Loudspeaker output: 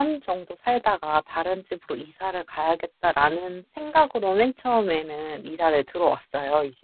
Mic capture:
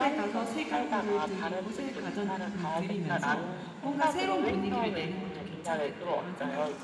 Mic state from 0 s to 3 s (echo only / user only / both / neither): both